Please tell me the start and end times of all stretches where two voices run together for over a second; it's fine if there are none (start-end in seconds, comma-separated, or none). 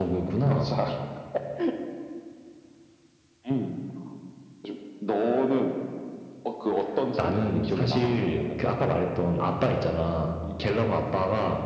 7.2-8.4